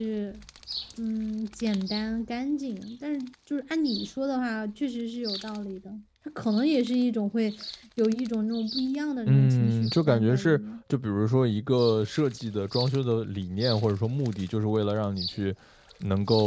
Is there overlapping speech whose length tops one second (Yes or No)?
Yes